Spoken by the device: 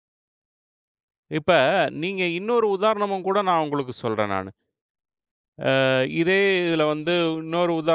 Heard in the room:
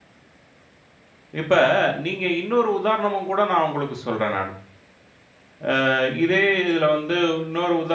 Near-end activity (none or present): none